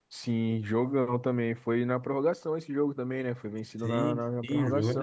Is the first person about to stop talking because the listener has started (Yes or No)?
Yes